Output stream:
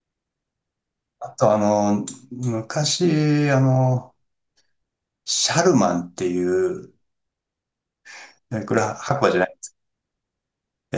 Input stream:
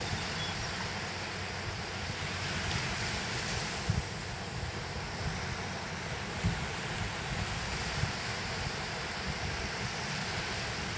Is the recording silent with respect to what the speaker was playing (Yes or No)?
Yes